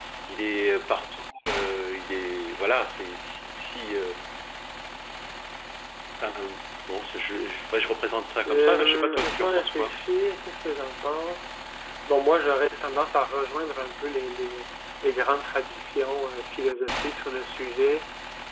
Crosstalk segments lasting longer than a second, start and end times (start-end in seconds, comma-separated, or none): 8.4-9.9